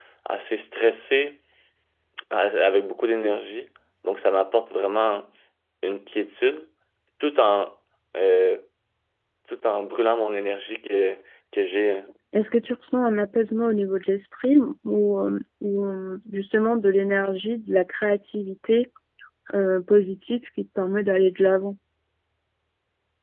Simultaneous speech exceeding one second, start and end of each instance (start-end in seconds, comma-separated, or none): none